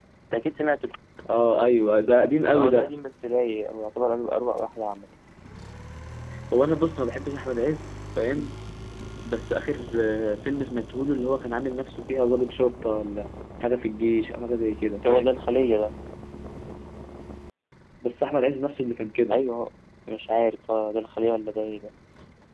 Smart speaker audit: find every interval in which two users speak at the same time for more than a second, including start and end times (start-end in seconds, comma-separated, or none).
none